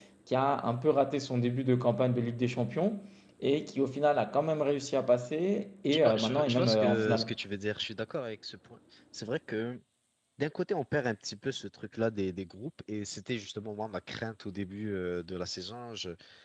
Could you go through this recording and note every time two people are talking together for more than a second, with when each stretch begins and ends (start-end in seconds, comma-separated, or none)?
5.9-7.3